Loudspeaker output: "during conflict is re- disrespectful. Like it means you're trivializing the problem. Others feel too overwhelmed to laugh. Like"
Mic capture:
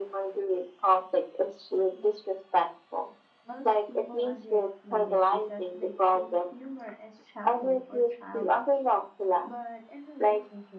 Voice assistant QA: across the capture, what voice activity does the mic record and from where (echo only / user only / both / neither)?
both